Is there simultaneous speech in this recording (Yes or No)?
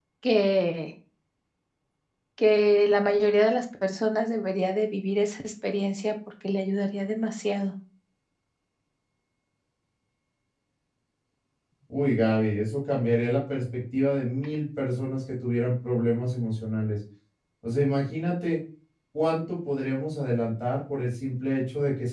No